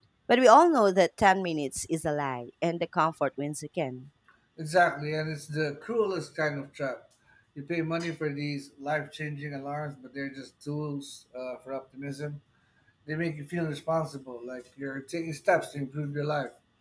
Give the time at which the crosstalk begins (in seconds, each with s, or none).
none